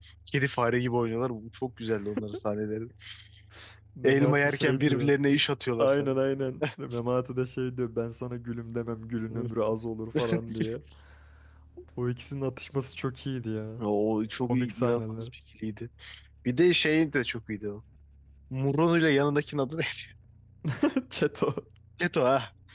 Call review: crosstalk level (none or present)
present